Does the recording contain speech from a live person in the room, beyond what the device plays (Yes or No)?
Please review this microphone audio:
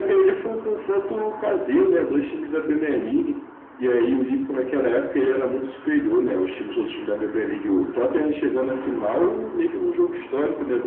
No